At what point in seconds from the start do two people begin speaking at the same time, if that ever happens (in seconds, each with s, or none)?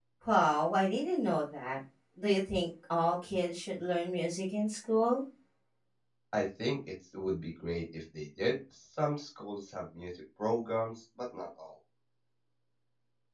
none